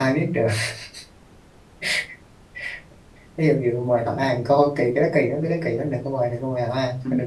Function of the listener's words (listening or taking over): taking over